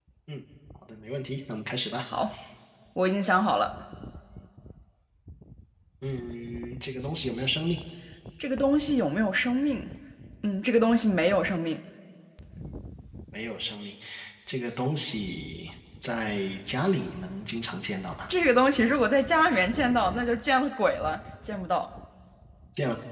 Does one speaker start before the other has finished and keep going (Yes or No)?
No